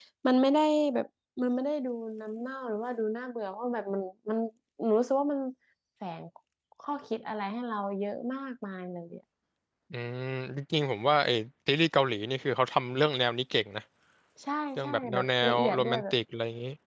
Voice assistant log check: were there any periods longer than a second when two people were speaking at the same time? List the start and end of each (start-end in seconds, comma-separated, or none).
14.8-16.1